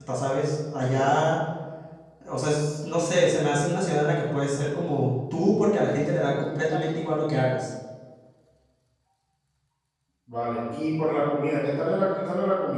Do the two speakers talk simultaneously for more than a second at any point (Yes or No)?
No